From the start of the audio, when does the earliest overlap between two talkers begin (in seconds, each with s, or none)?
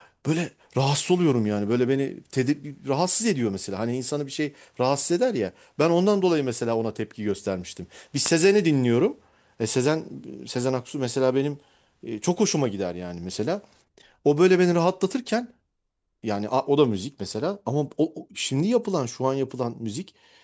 none